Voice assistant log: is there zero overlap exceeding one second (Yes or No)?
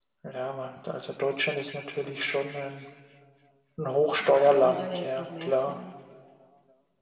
No